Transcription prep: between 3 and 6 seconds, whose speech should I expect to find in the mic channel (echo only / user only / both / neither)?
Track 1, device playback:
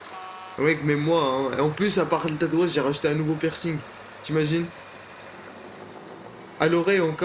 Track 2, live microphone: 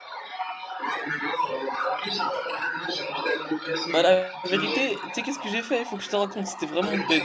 both